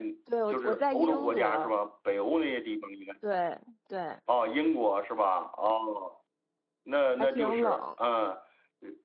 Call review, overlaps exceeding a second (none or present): present